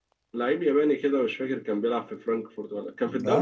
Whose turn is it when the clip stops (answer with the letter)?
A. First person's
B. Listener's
A